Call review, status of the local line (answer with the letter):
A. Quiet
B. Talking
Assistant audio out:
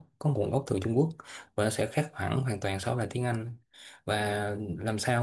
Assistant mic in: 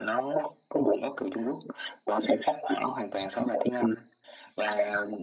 A